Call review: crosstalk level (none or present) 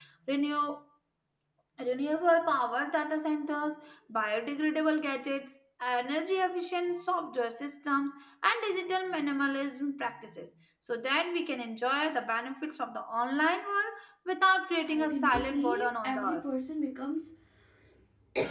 present